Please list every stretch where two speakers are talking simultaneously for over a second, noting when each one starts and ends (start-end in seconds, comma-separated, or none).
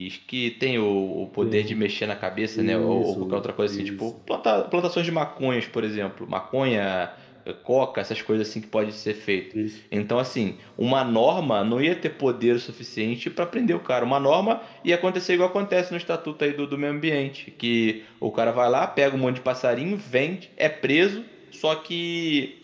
2.5-4.0